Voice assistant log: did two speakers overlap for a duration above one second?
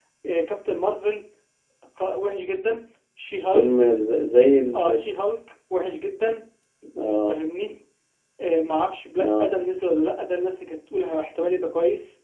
No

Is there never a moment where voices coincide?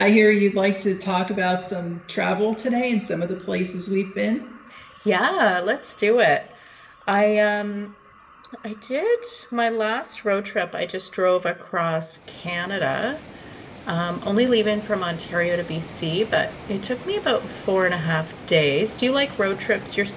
Yes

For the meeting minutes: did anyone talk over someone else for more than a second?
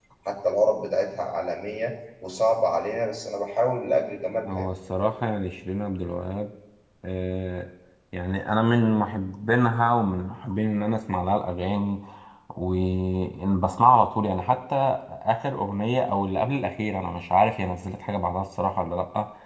No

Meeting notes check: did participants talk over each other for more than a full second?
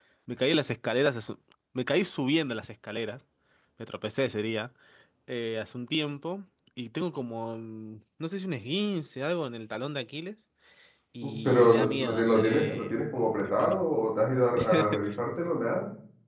Yes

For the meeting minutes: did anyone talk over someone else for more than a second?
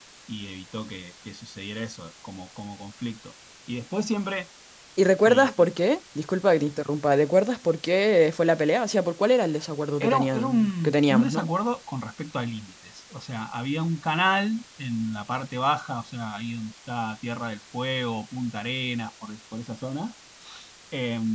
Yes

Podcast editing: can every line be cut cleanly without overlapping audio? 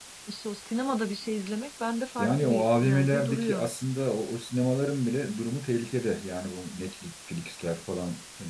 No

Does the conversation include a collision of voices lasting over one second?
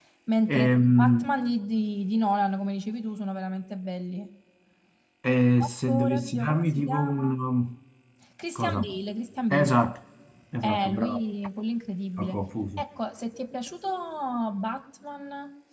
Yes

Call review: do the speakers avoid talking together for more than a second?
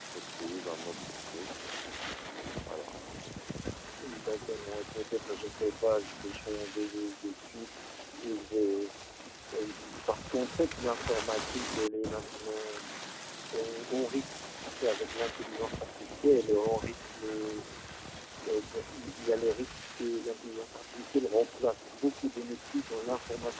Yes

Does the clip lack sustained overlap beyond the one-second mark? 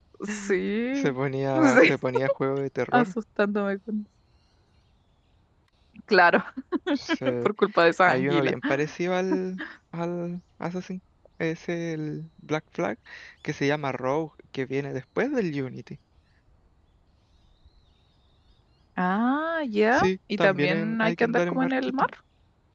No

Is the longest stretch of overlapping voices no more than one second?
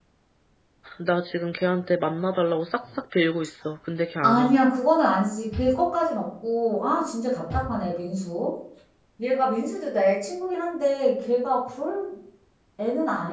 Yes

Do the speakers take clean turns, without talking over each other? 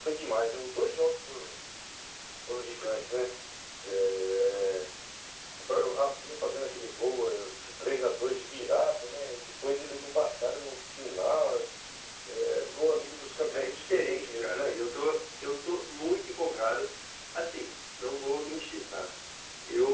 No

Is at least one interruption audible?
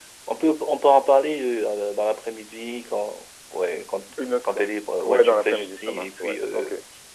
Yes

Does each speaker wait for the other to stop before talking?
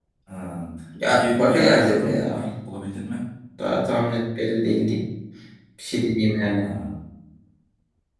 No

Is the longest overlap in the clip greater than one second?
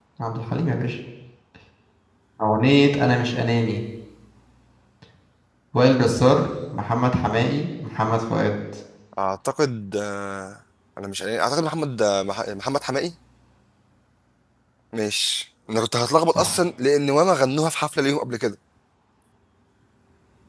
No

